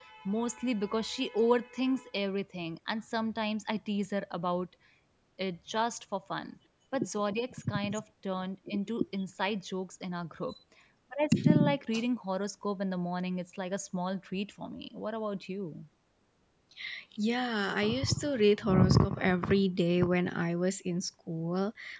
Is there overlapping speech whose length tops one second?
No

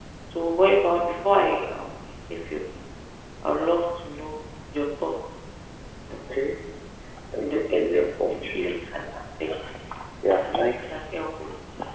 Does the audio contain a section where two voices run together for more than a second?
Yes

